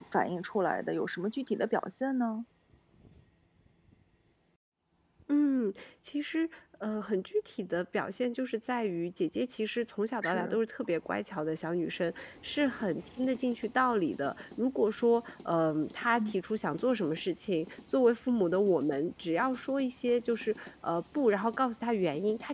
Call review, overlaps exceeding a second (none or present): none